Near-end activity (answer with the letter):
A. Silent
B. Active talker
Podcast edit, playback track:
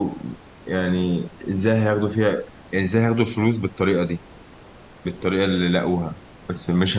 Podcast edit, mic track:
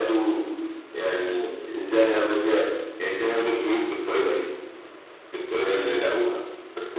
A